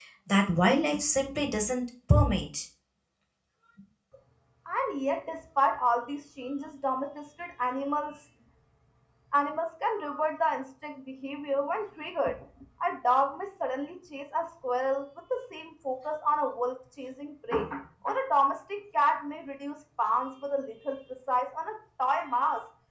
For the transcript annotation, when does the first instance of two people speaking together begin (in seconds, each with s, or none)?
none